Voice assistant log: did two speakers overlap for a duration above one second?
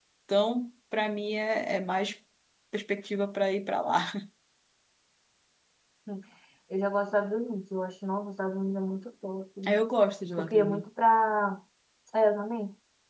No

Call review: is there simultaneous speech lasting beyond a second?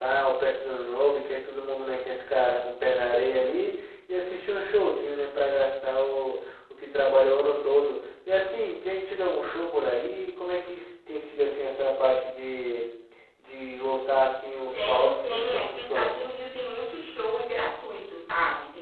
Yes, from 14.7 s

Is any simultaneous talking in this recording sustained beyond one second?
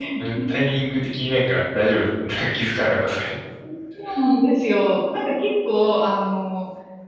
No

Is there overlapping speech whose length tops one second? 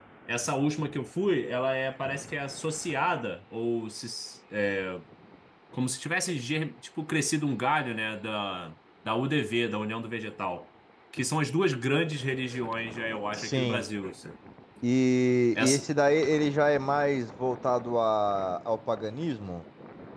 No

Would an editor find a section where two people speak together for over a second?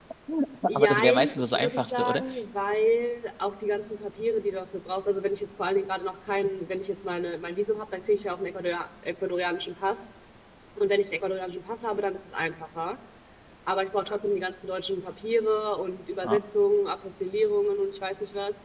Yes, from 0.7 s

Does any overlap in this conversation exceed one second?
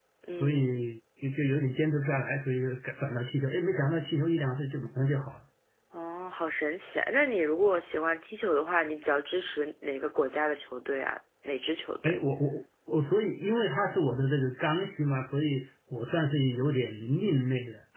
No

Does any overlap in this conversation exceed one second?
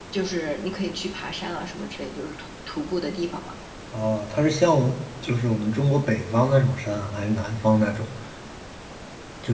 No

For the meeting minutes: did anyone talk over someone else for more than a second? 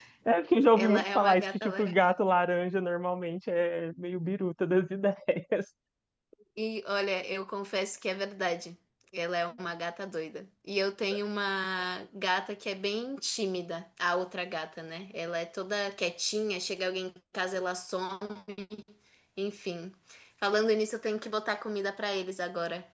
Yes, from 0.8 s

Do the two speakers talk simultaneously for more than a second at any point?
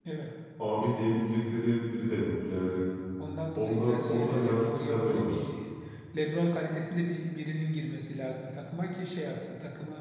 Yes, from 3.6 s

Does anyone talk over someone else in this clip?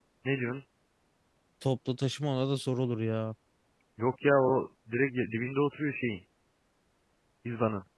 No

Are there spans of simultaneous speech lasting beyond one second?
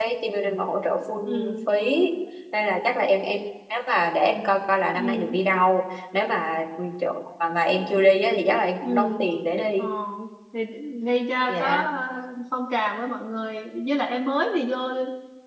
No

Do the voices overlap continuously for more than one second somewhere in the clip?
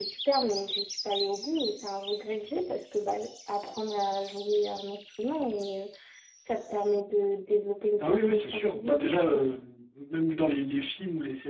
Yes, from 8.0 s

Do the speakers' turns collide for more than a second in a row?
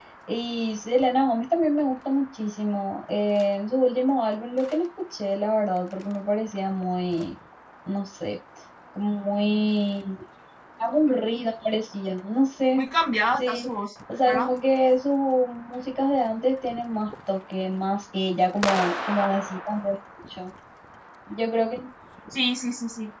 No

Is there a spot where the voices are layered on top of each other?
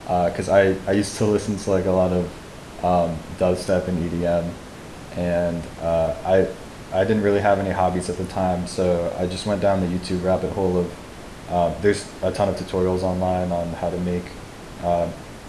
No

